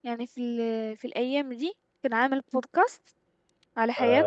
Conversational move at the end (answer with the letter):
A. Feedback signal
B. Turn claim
B